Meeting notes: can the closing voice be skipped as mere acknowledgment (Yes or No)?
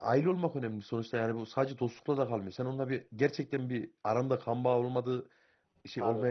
Yes